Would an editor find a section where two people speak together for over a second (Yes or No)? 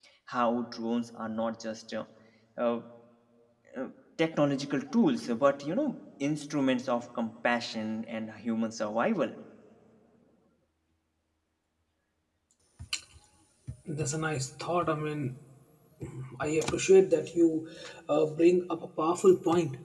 No